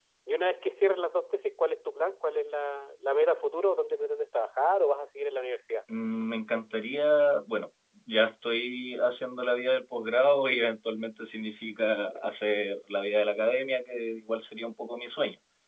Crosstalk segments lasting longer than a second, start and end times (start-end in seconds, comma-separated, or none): none